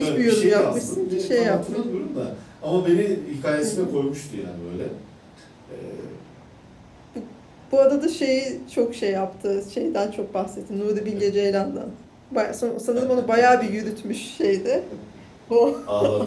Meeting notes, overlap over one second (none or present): present